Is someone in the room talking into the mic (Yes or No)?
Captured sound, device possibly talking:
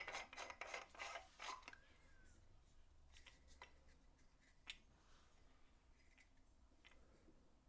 No